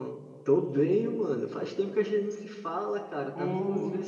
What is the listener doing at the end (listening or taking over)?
listening